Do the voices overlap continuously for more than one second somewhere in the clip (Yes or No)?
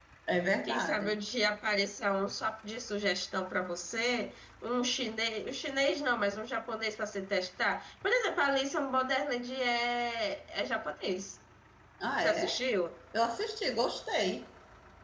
No